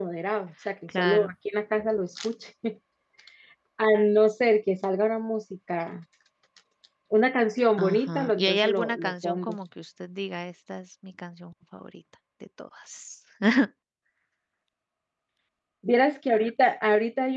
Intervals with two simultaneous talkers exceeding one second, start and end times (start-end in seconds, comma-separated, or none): 7.8-9.5